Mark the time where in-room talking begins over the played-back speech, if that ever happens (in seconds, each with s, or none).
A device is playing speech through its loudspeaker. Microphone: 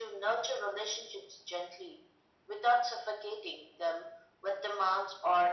none